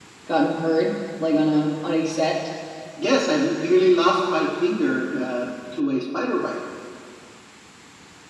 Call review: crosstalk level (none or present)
none